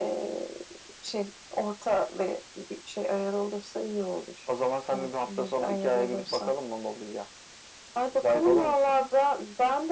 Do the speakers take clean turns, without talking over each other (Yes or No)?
No